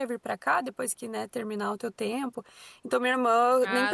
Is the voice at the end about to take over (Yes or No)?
No